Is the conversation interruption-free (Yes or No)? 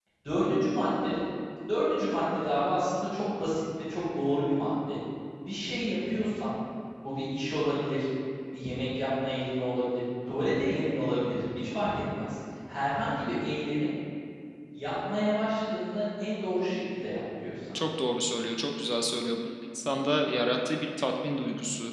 Yes